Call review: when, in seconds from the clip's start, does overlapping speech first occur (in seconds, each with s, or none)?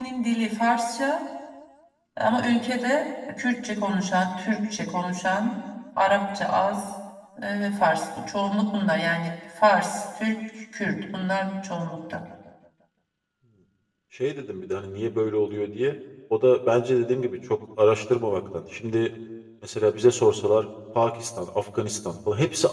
none